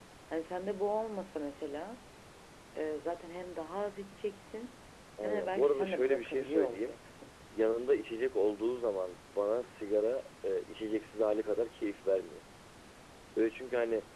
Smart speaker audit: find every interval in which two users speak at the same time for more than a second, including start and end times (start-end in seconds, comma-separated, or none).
5.2-6.9